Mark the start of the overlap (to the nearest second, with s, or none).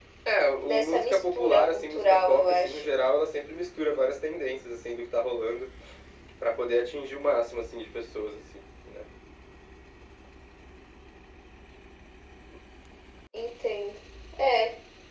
1 s